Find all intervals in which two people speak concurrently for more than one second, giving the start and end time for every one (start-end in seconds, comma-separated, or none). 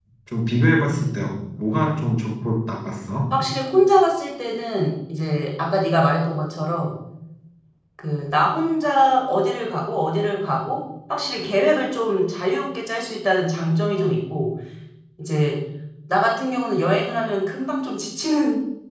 none